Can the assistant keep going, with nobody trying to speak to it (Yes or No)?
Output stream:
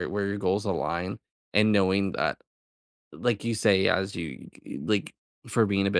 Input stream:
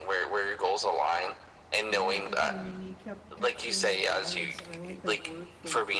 No